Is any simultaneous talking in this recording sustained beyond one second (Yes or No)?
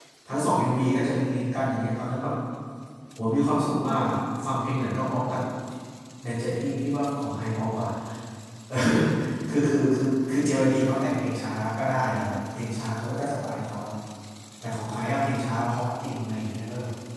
No